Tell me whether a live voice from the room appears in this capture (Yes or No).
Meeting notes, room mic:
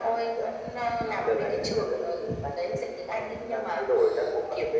No